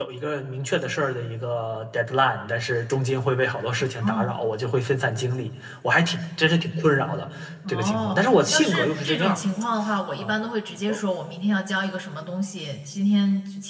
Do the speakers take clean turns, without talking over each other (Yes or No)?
No